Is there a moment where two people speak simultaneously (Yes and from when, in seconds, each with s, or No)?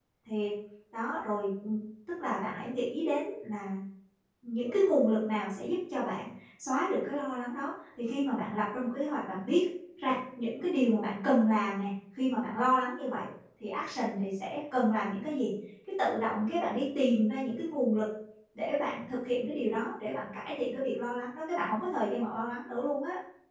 No